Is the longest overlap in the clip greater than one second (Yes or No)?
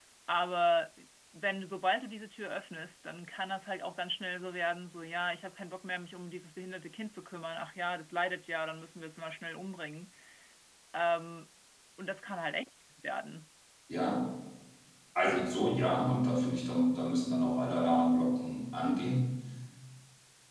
No